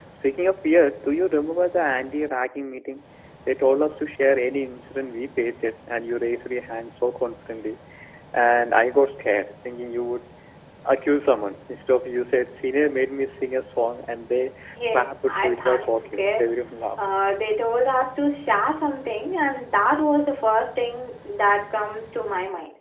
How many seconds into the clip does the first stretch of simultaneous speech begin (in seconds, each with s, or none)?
14.9 s